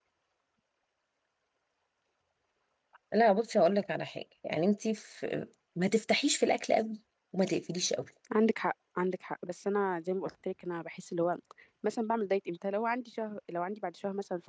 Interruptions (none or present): none